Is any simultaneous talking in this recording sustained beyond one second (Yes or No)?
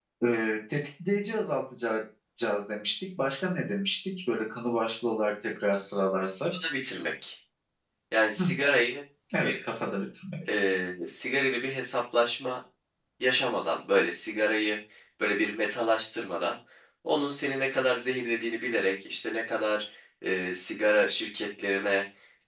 No